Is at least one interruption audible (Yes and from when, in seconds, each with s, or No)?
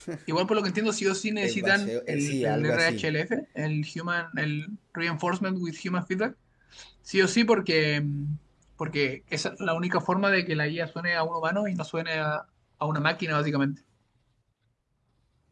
Yes, from 1.4 s